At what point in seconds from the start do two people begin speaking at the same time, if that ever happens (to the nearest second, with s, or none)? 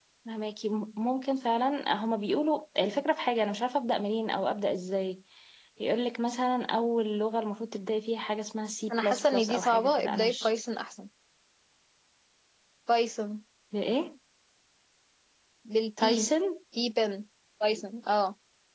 9 s